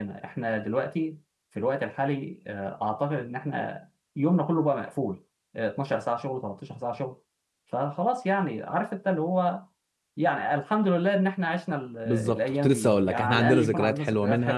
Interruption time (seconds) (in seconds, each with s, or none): 12.1 s